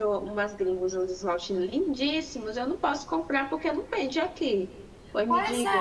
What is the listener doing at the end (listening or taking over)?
taking over